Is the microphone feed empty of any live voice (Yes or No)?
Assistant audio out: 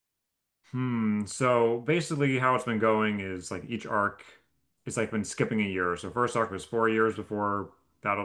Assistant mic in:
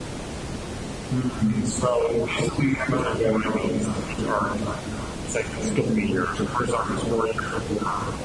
Yes